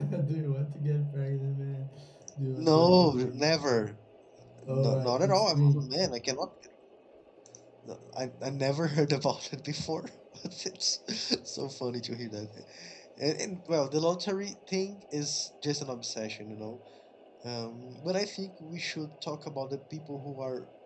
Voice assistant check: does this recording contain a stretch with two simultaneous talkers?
Yes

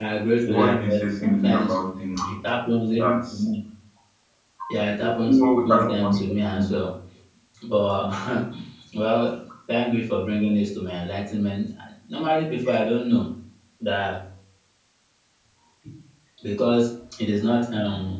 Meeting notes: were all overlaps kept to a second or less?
No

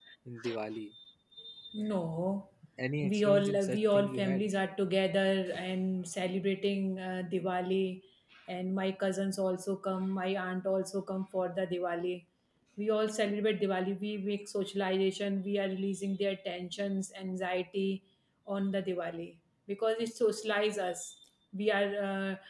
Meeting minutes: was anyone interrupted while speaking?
Yes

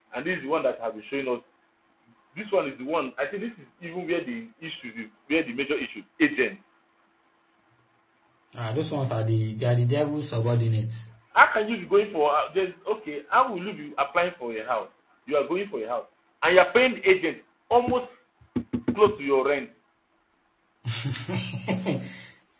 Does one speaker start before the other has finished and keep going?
No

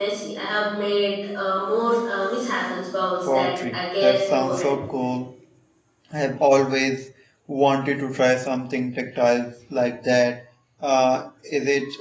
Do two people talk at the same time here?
Yes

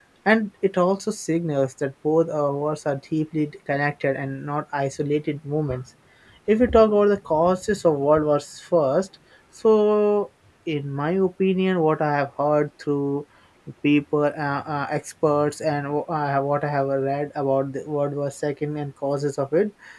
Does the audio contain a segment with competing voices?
No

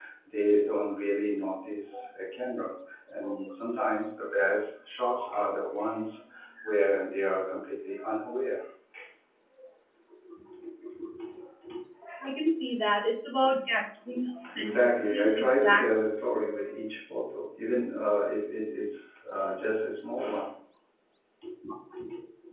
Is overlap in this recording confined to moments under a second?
No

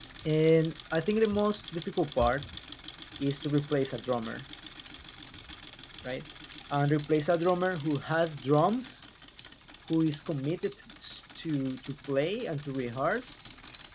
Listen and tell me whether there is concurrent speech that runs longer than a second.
No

